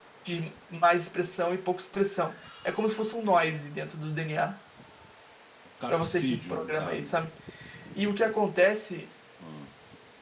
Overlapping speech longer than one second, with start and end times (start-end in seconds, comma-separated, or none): 5.9-7.1